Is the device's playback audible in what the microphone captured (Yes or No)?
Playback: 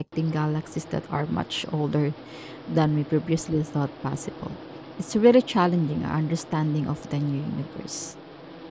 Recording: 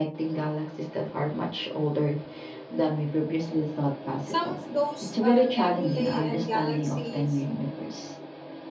Yes